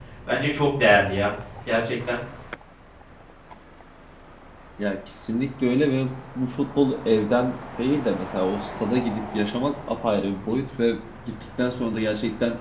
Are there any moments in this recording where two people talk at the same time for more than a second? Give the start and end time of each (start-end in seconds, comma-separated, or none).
none